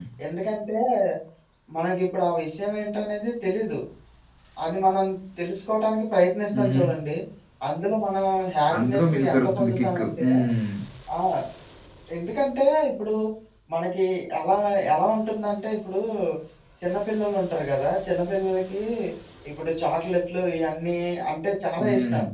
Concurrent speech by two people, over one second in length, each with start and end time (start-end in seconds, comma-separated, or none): 8.8-10.3